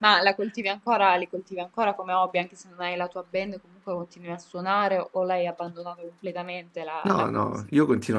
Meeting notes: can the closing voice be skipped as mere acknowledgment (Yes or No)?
No